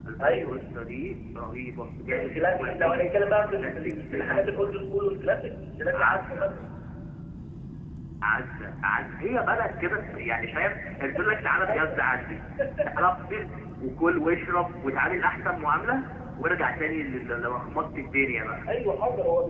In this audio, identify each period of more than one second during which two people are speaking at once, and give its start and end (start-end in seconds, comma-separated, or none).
2.1-4.5